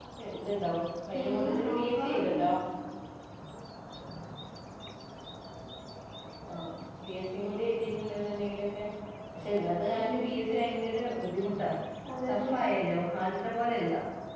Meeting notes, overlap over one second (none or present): present